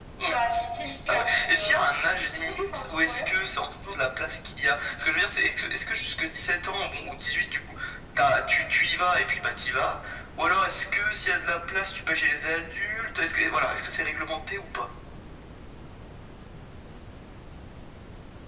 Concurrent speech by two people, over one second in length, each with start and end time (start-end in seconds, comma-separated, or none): 1.1-3.3